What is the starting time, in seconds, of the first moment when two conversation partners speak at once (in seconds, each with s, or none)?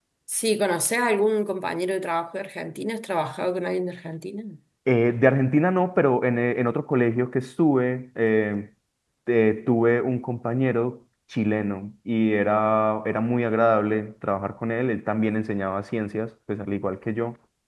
none